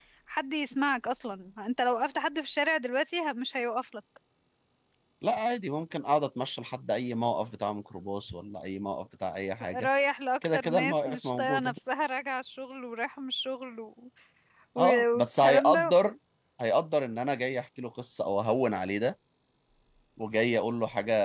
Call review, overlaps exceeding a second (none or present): present